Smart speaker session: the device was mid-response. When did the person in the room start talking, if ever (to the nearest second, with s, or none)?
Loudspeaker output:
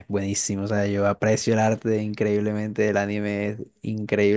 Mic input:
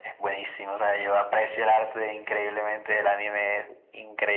none